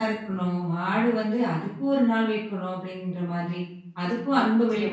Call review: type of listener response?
listening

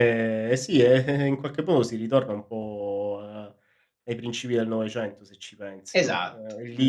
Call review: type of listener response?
listening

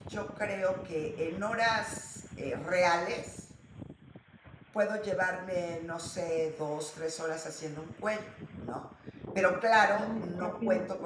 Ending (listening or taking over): listening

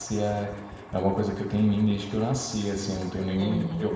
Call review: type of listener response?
taking over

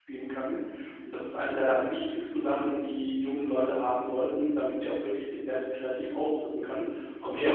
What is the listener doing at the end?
taking over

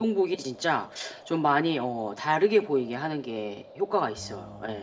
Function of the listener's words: taking over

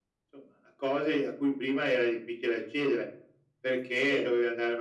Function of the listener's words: listening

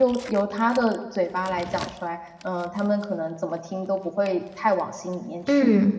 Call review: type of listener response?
taking over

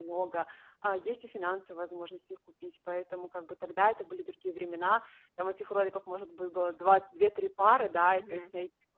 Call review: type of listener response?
listening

